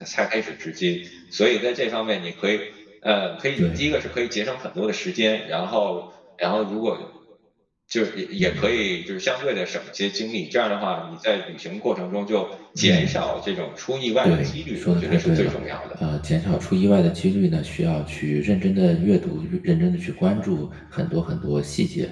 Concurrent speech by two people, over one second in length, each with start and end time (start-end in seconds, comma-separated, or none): 14.2-15.5